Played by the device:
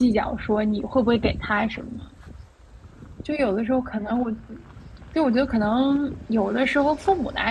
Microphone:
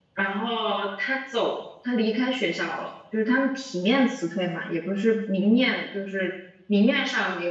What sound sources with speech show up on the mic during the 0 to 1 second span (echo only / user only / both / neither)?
user only